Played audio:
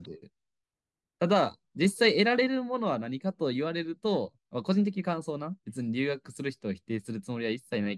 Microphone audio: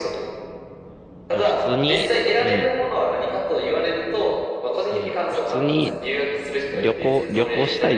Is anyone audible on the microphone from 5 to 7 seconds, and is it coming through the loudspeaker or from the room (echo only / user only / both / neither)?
both